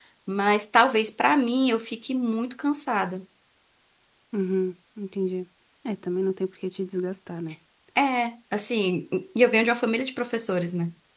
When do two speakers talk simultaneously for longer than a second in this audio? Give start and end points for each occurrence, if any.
none

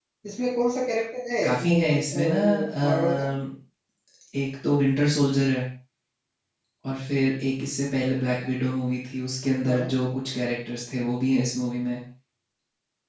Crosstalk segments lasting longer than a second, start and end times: 1.4-3.1

